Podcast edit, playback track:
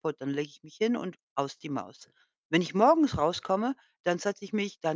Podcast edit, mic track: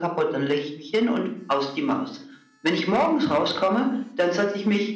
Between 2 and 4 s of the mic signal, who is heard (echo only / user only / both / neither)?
echo only